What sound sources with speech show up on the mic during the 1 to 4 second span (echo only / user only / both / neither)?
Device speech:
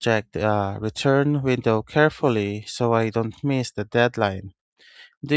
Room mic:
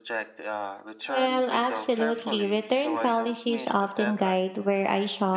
both